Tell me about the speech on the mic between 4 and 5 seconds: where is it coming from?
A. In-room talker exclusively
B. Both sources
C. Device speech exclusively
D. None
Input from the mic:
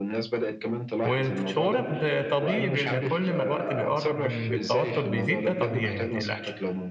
B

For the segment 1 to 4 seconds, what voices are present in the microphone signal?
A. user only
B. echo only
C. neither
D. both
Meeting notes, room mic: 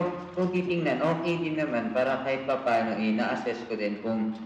B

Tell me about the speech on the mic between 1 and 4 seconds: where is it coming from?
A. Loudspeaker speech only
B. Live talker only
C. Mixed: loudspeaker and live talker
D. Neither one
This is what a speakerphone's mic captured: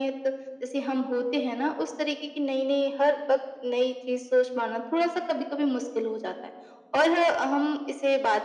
A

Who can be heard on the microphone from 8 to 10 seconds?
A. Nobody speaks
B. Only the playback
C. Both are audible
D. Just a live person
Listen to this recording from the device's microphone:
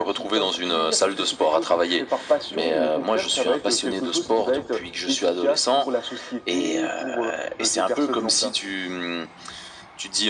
B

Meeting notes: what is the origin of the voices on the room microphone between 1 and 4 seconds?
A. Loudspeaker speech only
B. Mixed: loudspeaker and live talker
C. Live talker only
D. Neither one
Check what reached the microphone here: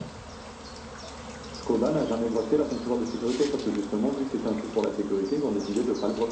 A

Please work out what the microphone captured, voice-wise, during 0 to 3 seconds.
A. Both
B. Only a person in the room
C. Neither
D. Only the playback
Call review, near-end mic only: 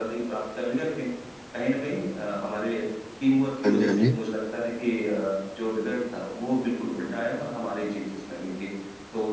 D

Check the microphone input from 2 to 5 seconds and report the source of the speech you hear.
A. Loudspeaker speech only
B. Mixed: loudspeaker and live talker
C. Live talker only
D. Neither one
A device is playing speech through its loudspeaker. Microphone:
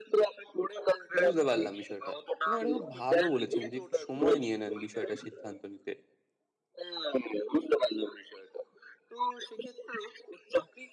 B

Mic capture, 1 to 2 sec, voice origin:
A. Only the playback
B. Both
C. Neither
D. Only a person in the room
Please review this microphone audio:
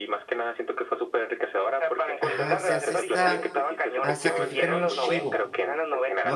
A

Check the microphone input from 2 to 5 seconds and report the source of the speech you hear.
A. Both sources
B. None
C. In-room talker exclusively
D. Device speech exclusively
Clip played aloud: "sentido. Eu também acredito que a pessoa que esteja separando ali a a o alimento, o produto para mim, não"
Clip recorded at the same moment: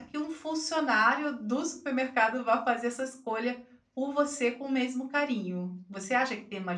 C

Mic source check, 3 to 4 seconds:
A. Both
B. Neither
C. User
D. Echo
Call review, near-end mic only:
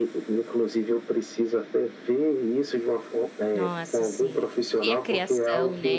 A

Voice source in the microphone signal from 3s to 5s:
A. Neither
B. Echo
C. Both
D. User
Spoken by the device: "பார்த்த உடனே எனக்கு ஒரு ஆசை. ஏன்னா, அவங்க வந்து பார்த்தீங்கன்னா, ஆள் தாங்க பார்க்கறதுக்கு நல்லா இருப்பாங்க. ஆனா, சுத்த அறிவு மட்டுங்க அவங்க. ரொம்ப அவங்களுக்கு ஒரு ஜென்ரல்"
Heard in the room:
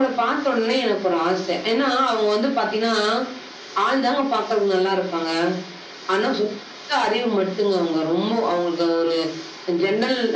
B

